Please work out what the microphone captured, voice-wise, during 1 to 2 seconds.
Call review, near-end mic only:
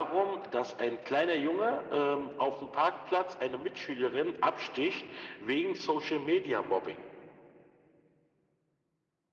echo only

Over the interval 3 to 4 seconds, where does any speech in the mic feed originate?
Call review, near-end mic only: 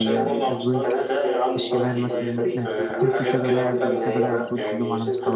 both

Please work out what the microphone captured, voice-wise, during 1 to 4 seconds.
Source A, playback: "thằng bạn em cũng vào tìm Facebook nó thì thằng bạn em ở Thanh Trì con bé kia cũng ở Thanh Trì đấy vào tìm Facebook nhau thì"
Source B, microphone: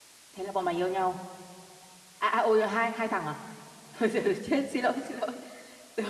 user only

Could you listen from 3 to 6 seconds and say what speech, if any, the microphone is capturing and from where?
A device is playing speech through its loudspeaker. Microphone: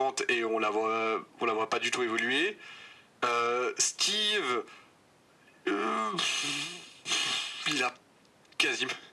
echo only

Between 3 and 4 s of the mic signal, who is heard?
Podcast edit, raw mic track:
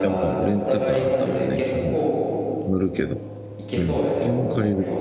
both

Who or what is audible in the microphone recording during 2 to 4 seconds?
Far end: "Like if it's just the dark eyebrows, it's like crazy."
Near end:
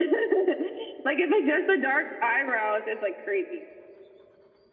echo only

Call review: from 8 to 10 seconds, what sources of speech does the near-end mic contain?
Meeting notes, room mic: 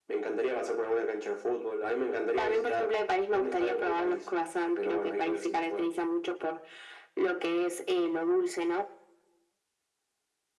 echo only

